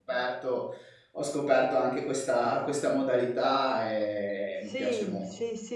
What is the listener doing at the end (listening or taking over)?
taking over